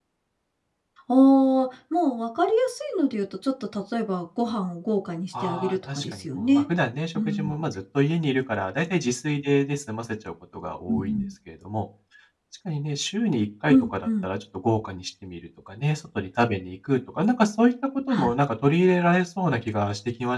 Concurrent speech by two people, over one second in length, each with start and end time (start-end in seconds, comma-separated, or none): 5.4-6.6